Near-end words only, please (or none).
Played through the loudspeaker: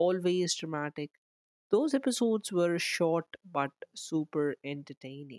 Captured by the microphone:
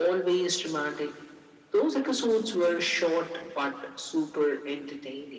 none